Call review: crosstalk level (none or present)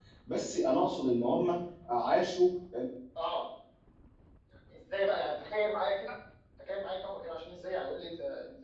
none